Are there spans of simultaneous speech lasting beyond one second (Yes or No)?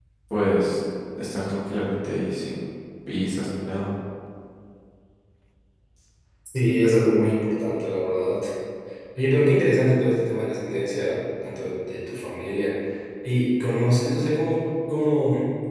No